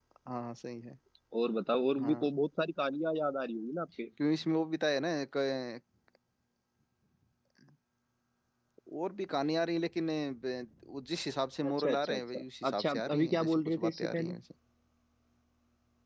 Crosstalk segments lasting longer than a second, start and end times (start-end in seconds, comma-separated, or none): 11.7-14.3